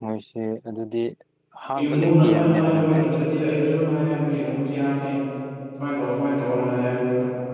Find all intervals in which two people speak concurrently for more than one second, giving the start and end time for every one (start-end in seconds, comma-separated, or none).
1.8-3.2